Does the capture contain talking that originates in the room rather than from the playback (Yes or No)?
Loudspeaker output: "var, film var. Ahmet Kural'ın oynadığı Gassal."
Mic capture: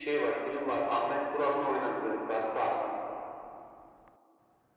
No